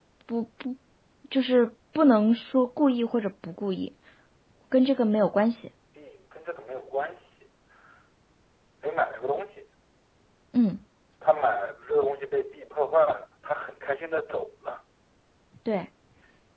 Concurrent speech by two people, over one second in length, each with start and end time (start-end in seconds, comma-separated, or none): none